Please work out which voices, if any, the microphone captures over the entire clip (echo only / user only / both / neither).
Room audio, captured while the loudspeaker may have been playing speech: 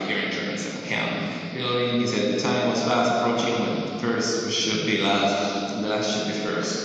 echo only